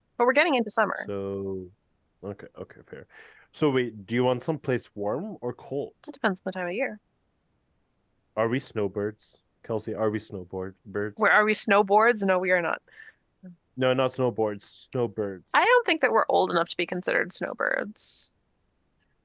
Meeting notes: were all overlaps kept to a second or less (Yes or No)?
Yes